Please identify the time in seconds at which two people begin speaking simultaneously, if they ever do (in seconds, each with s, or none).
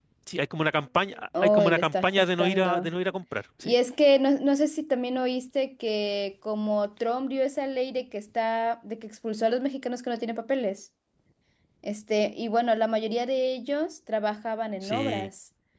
1.4 s